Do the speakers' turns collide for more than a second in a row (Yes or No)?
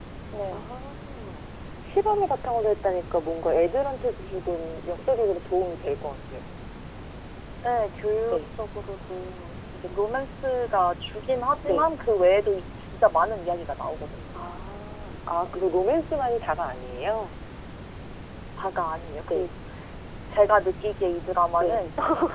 No